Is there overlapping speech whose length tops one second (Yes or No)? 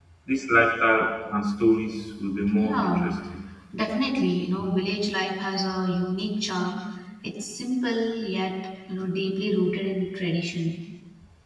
No